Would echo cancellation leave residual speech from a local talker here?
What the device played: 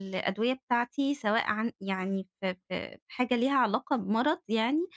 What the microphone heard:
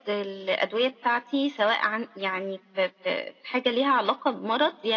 No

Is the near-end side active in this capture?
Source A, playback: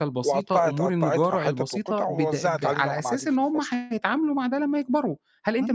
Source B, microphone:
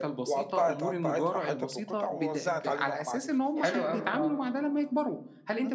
Yes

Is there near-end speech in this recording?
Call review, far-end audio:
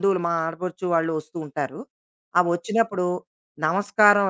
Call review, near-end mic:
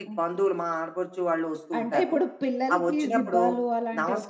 Yes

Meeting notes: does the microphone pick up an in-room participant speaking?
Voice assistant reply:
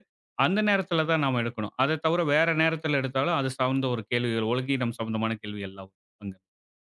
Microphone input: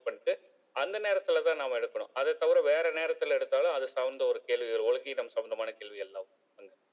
No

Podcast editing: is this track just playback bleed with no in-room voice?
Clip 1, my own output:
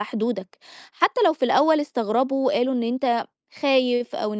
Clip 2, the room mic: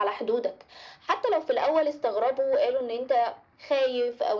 Yes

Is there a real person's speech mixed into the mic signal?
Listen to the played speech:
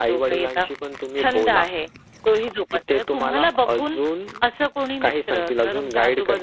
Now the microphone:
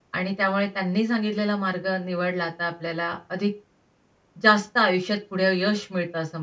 Yes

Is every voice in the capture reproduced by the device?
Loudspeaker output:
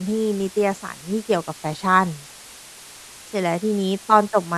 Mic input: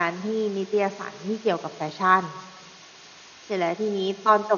Yes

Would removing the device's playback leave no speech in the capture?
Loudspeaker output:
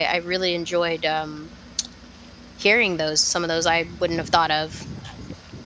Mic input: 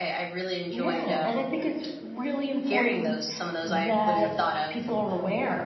No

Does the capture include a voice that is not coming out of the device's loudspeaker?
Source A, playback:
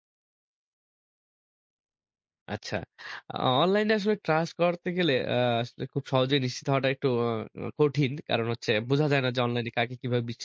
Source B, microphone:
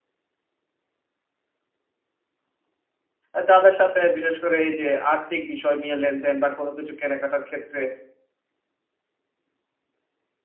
Yes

